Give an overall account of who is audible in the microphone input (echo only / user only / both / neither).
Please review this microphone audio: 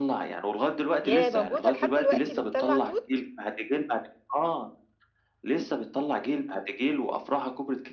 both